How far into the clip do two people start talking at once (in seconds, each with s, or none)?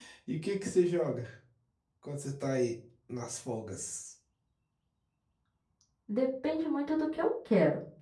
none